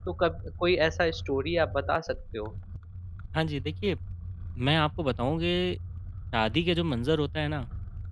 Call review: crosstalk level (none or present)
none